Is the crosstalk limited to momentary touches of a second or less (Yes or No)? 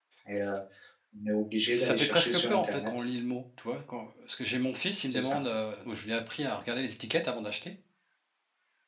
No